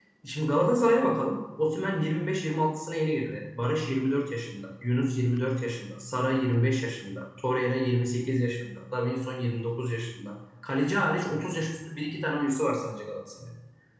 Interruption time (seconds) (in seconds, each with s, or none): none